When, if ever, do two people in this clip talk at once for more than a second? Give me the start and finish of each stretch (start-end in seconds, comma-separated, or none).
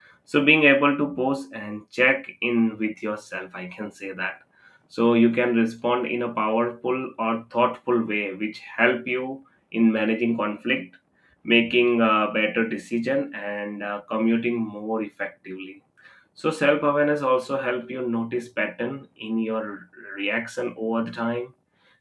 none